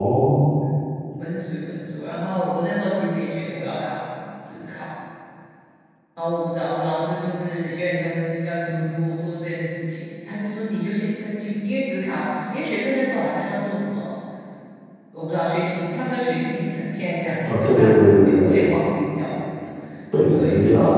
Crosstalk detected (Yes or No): Yes